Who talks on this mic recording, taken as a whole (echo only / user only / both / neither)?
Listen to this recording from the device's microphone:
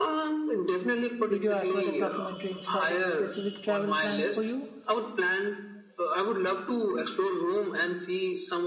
both